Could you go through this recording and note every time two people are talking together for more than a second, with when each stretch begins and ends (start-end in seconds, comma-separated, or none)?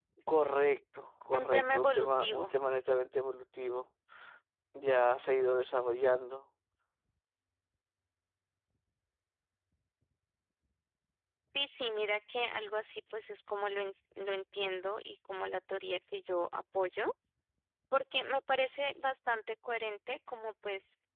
1.3-2.5